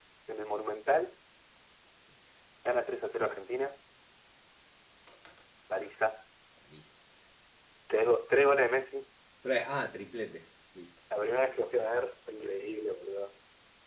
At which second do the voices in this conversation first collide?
none

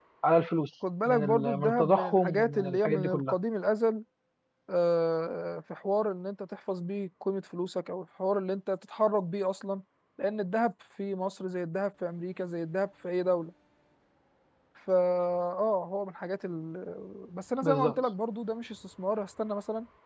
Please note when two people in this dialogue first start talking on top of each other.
1.0 s

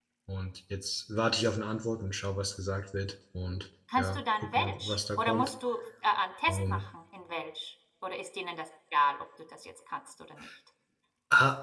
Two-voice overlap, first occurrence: 4.0 s

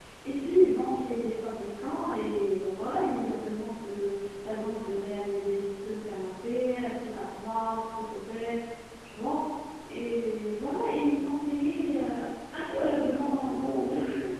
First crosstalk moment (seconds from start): 12.7 s

